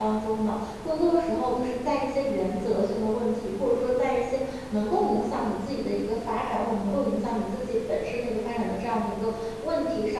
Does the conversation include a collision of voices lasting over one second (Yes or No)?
No